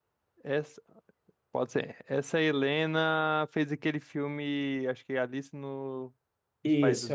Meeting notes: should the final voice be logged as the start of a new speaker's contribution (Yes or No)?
Yes